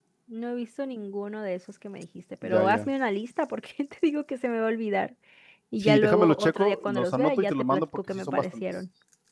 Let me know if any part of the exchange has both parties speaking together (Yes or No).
Yes